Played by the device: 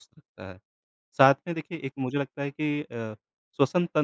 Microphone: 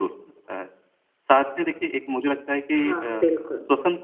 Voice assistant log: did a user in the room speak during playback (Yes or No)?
Yes